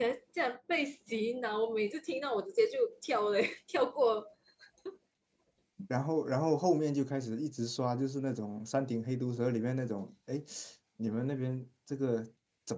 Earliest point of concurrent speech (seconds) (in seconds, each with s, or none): none